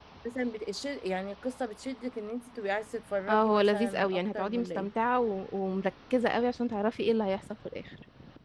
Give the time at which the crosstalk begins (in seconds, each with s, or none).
3.3 s